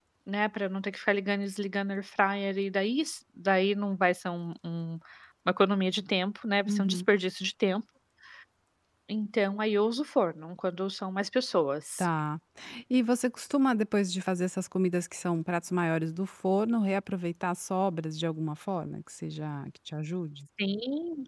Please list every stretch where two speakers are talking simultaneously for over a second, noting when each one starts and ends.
none

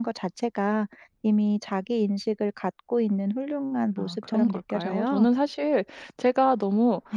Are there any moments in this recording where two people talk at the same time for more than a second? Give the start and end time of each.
4.0-5.3

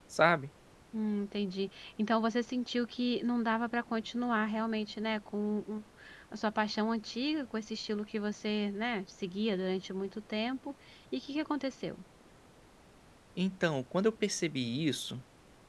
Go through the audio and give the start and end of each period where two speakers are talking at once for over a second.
none

